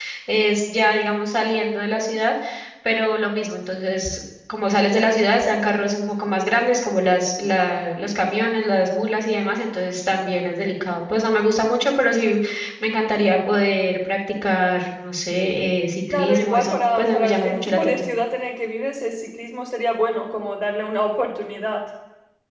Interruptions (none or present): present